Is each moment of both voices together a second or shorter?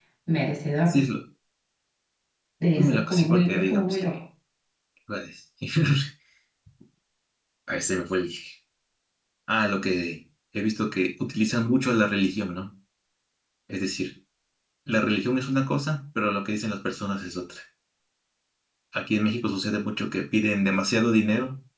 No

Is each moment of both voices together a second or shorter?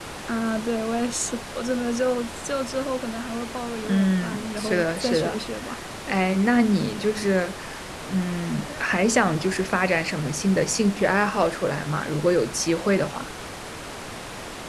No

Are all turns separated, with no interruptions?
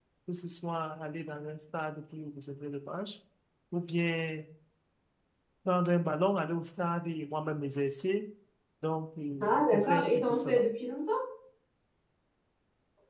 No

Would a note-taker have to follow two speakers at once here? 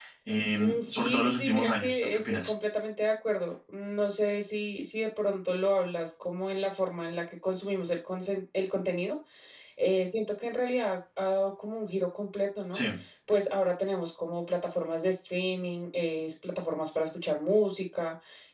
Yes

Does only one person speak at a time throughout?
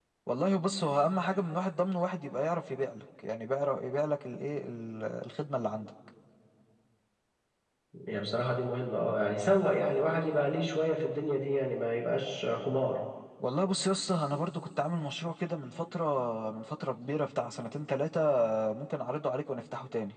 Yes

